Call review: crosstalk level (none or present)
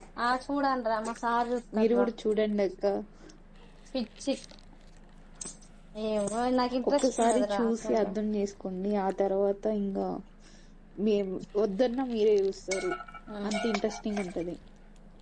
present